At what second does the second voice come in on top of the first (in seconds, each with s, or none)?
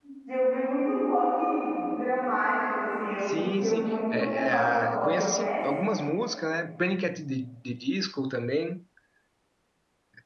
3.3 s